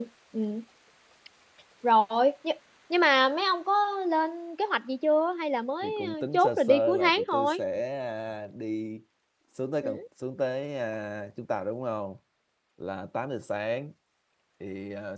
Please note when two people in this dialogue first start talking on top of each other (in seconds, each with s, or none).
5.8 s